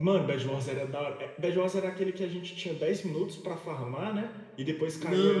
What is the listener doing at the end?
taking over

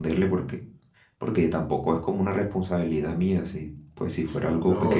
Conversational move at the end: taking over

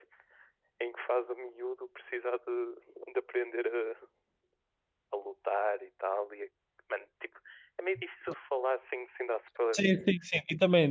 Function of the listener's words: taking over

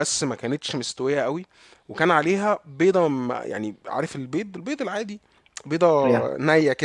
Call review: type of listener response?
listening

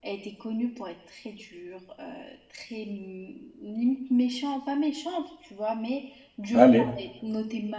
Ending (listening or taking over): listening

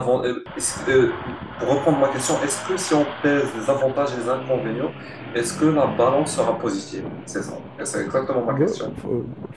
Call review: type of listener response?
taking over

